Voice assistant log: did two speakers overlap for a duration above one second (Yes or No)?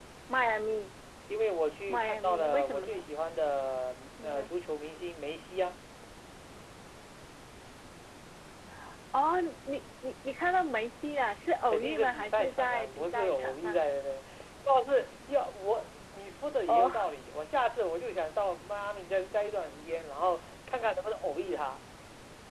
Yes